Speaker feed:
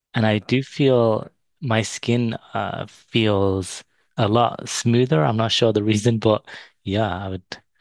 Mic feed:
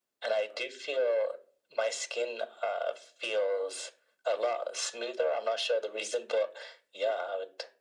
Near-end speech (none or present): none